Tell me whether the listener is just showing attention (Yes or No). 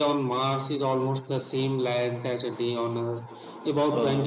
Yes